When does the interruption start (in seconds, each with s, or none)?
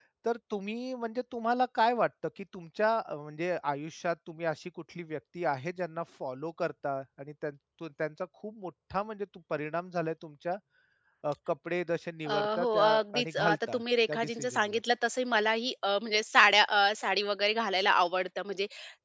12.3 s